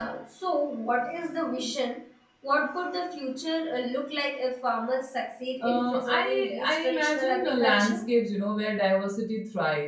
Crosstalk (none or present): present